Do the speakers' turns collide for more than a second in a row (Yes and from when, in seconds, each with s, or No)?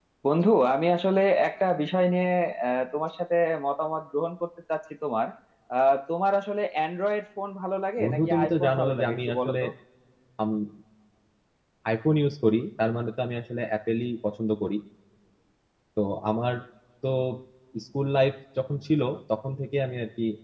Yes, from 8.0 s